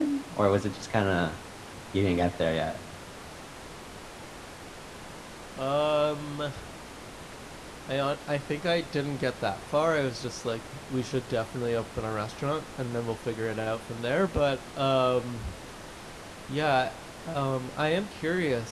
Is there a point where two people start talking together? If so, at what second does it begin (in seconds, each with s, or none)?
none